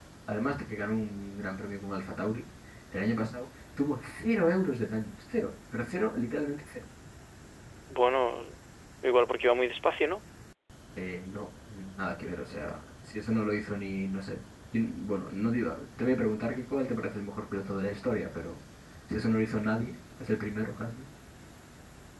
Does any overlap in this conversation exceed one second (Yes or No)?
No